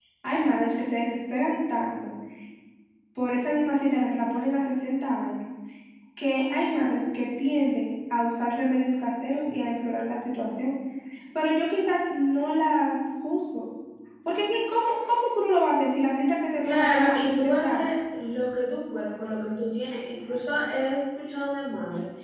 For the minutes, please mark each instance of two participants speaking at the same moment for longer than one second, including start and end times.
16.6-17.9

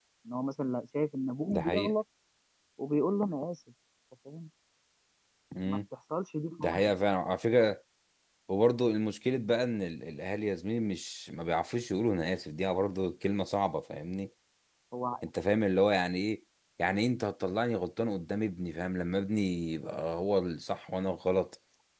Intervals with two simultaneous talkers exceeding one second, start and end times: none

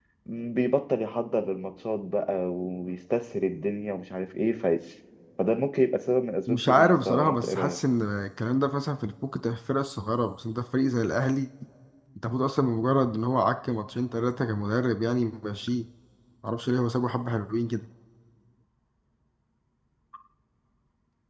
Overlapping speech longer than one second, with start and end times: 6.5-7.8

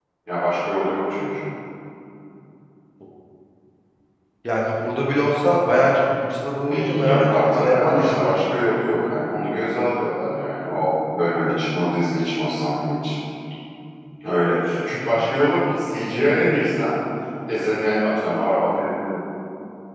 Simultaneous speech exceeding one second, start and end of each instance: 6.7-8.3

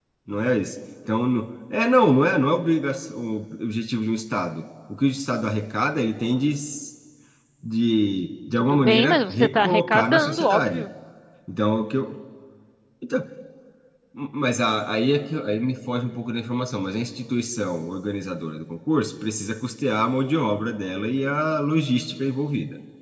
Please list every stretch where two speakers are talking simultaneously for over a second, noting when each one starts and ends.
8.6-10.8

